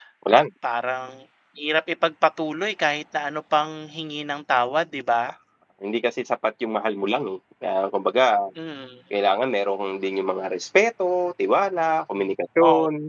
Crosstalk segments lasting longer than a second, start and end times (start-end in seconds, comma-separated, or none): none